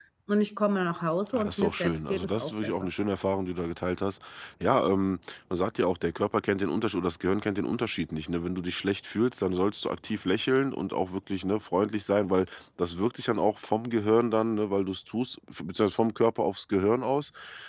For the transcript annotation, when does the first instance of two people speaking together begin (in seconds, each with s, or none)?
1.3 s